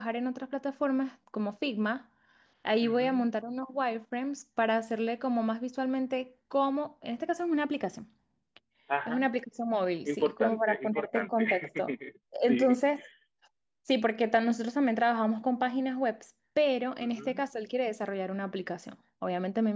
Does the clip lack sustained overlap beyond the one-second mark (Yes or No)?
No